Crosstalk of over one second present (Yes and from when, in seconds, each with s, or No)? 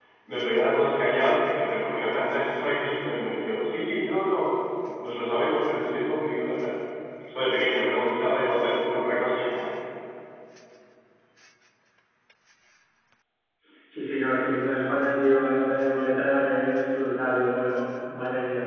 No